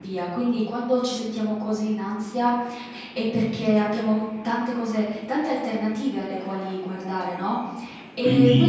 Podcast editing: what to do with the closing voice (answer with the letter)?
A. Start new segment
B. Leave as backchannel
A